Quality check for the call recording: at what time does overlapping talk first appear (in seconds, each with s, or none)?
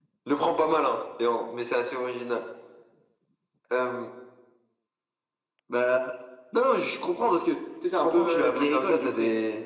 8.0 s